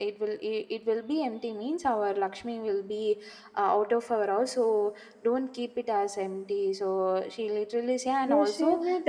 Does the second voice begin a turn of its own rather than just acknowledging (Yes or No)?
Yes